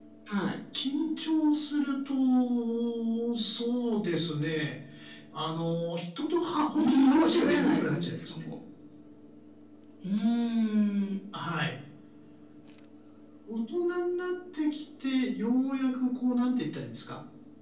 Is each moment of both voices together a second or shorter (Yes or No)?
No